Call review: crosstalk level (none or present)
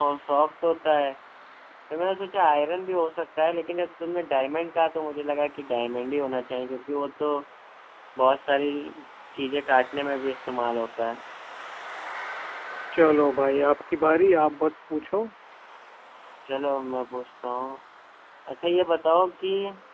none